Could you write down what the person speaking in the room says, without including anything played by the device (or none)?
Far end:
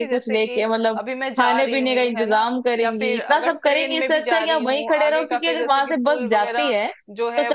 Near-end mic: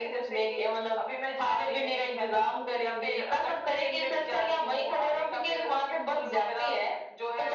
none